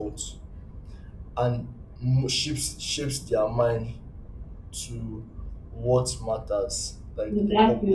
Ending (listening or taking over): listening